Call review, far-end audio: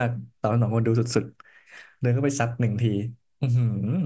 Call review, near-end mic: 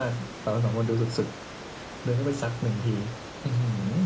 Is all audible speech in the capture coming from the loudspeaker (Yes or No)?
Yes